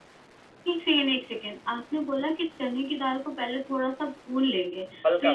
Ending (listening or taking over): listening